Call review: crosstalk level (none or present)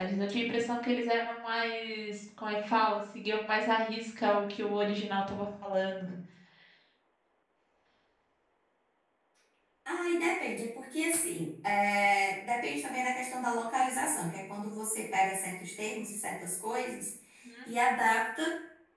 none